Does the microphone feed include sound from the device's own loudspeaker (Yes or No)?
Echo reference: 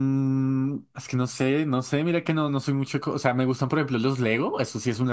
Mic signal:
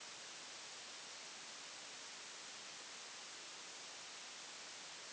No